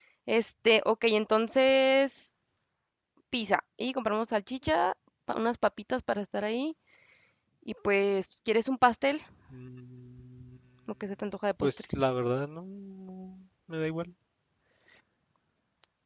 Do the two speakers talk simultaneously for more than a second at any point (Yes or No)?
No